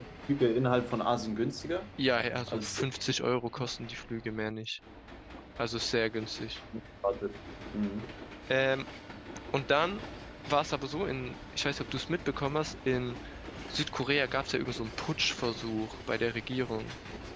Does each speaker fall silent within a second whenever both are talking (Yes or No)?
Yes